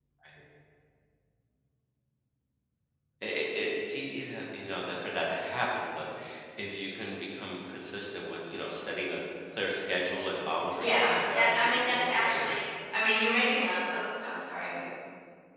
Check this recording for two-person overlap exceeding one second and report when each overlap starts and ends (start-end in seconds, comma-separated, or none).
10.8-12.5